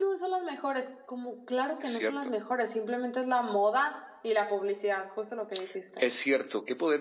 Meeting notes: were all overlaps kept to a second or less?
Yes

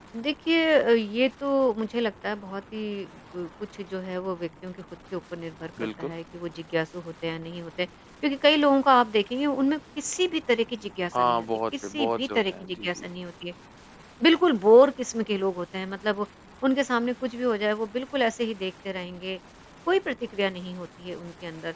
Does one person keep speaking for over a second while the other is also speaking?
Yes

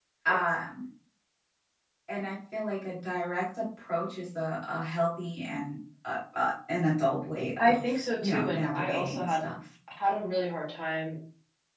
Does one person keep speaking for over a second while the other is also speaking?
Yes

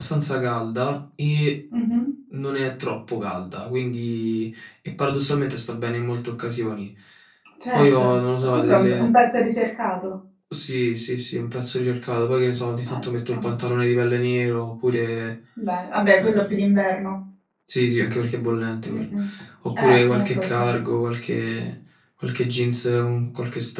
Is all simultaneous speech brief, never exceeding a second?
No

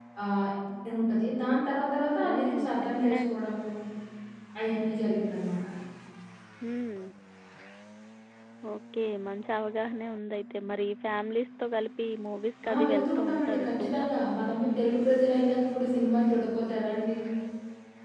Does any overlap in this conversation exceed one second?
Yes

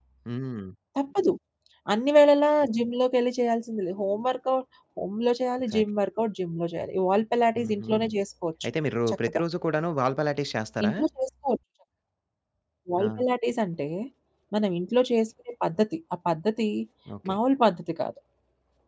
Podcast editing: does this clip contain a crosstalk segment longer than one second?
No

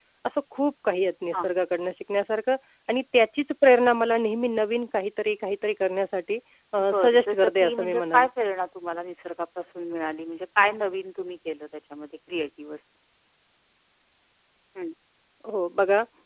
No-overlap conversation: No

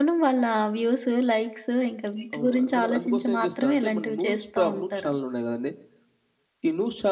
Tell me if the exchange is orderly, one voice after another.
No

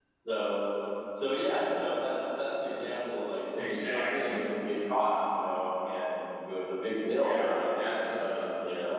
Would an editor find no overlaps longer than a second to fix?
No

